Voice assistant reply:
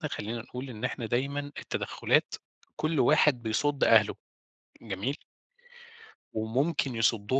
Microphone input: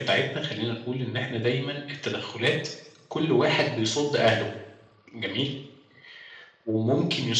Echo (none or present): present